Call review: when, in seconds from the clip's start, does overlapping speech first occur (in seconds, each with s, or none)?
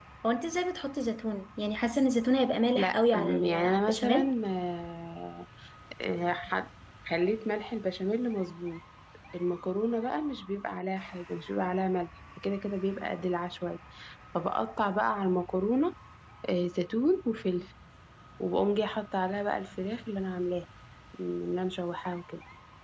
2.8 s